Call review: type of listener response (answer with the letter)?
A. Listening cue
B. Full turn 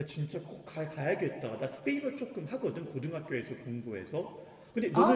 A